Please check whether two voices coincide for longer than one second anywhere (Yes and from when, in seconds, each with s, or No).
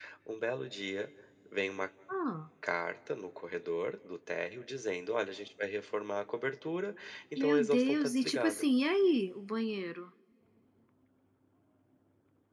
Yes, from 7.4 s